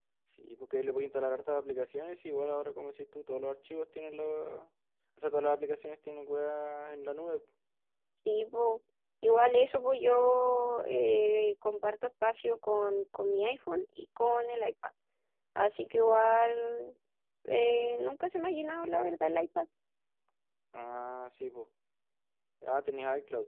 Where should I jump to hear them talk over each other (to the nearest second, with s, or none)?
none